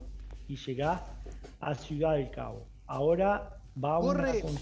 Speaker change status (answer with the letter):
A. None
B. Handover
B